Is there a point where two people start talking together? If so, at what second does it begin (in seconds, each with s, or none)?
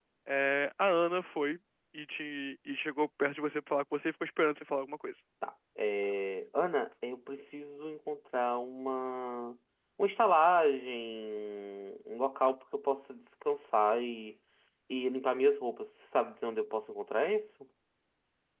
none